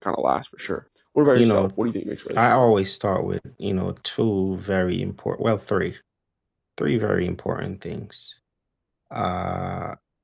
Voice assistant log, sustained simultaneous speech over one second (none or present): none